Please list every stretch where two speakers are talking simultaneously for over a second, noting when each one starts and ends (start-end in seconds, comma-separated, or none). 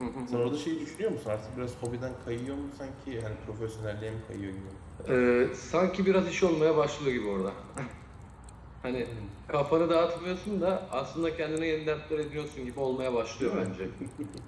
none